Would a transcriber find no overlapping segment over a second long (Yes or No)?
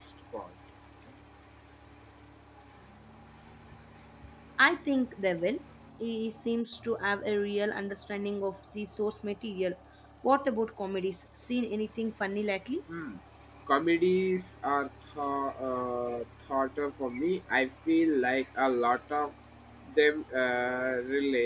Yes